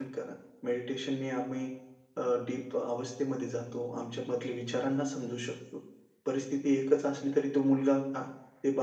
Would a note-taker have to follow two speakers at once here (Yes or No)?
No